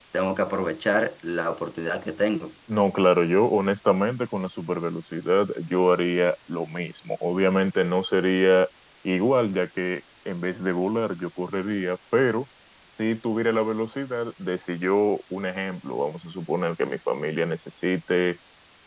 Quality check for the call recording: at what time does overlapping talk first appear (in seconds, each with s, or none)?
none